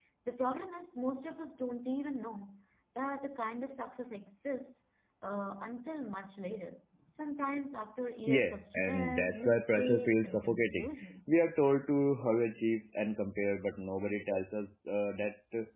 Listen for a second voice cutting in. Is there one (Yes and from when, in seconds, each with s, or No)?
Yes, from 8.3 s